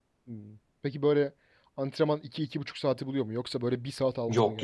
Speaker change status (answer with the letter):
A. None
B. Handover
B